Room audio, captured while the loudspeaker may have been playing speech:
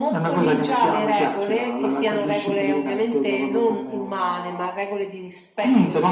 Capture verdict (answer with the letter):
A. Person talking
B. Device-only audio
B